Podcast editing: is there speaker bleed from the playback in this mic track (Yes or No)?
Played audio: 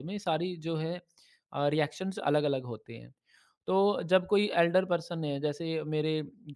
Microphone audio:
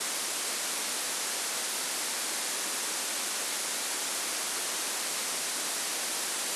No